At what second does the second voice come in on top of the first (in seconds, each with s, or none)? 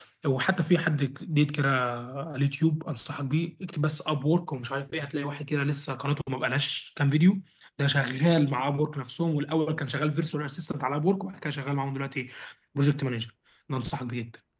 none